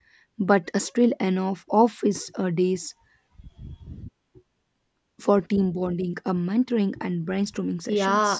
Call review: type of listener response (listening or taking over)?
taking over